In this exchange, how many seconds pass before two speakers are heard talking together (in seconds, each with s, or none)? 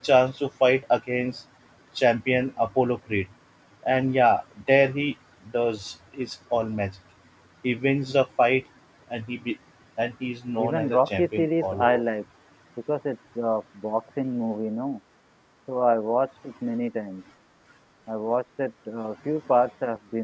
10.6 s